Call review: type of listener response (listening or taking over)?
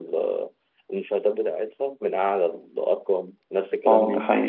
taking over